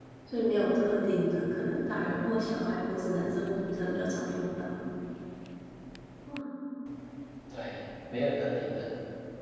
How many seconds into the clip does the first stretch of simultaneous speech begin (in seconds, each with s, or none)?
none